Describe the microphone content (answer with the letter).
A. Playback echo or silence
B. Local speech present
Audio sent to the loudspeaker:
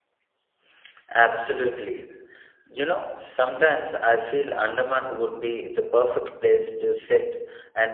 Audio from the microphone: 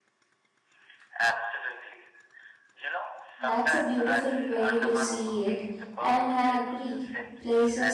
B